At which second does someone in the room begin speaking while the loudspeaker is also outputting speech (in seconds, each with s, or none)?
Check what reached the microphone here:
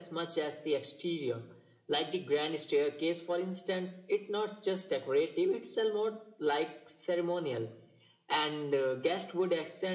none